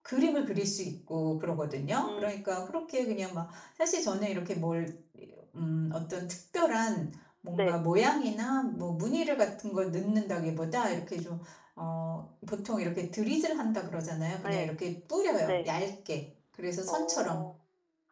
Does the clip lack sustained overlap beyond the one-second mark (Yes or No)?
Yes